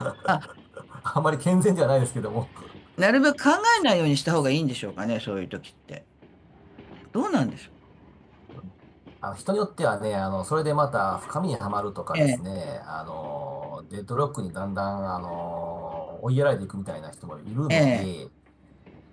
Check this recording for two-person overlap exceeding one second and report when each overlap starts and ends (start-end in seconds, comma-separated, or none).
none